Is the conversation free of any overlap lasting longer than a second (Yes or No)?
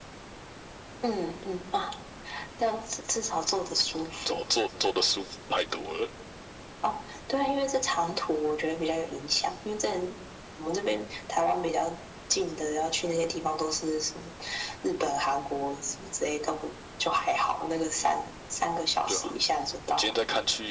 Yes